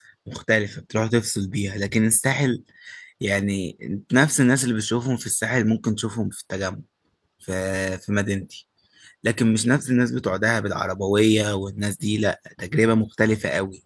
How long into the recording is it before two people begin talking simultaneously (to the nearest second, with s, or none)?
none